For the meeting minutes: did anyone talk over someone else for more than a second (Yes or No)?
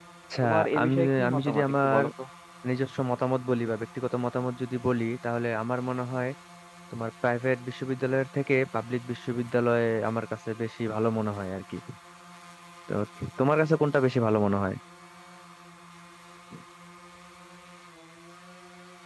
Yes